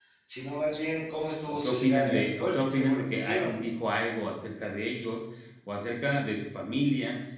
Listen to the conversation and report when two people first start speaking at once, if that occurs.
1.5 s

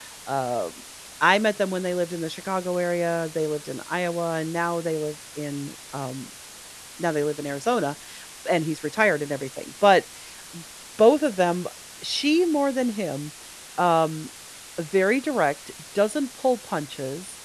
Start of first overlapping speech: none

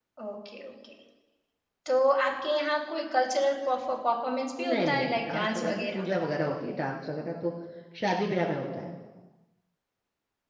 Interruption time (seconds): 4.6 s

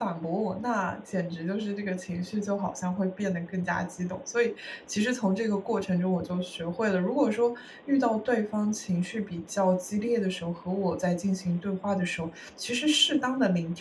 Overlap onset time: none

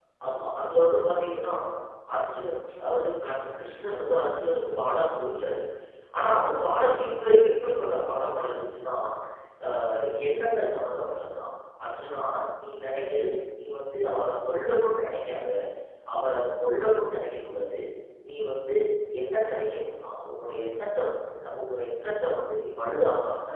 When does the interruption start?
none

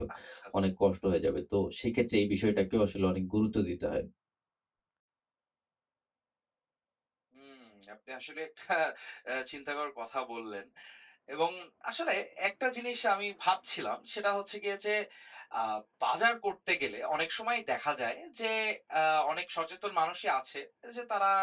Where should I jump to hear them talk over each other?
none

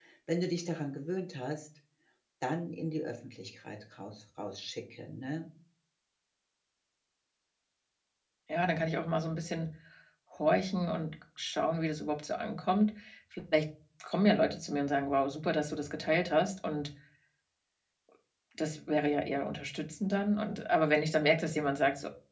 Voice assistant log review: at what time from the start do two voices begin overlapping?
none

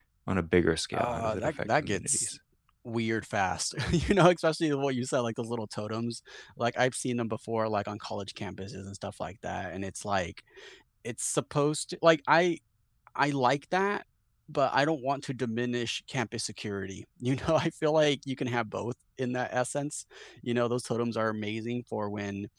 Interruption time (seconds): 0.9 s

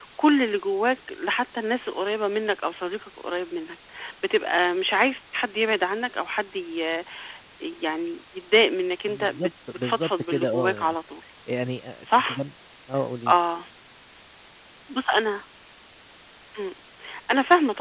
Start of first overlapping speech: 9.1 s

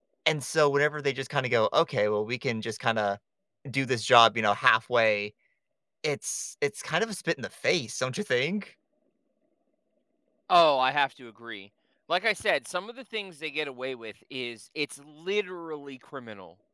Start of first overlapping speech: none

